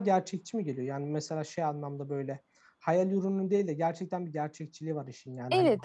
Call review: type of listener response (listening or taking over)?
taking over